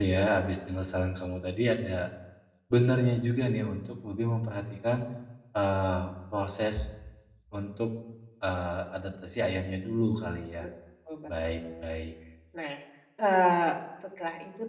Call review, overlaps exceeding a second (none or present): none